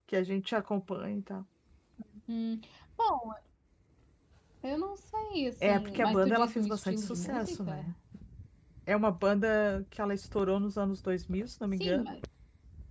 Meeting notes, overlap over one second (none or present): present